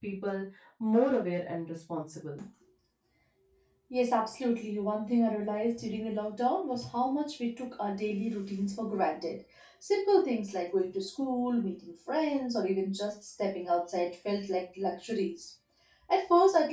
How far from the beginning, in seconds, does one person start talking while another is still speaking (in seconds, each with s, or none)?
none